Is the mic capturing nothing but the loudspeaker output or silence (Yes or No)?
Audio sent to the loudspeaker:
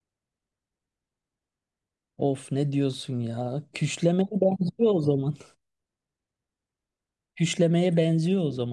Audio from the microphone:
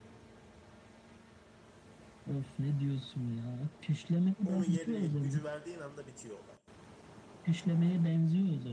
No